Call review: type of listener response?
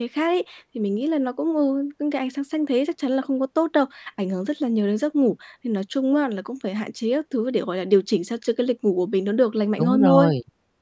taking over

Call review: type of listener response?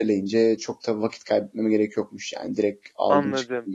taking over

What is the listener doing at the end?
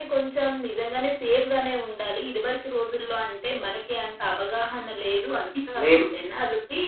listening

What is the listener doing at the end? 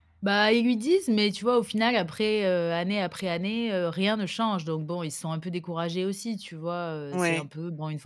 listening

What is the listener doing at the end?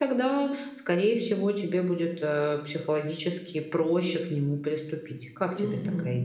taking over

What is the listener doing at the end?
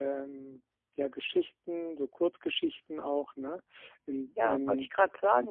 taking over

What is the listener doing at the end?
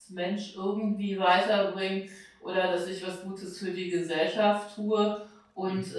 listening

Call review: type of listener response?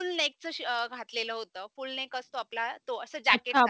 taking over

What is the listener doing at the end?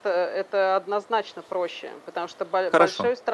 listening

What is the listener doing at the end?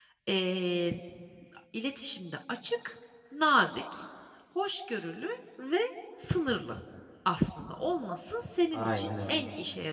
listening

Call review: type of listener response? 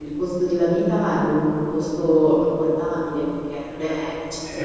taking over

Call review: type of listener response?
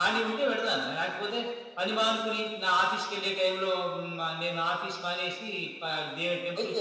taking over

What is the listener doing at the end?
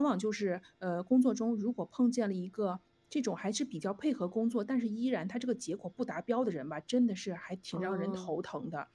listening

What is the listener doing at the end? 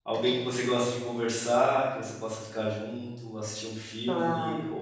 listening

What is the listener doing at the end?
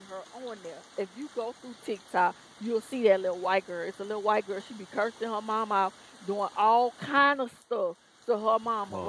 listening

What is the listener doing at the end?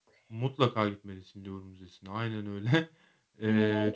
listening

